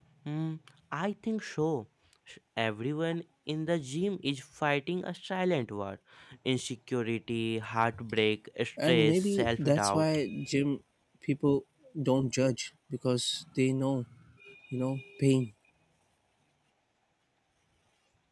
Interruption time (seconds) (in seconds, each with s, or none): 8.8 s